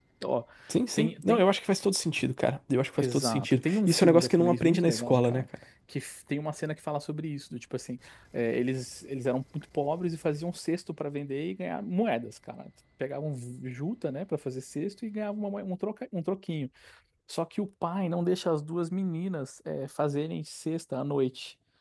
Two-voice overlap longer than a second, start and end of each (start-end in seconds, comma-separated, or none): 3.0-5.5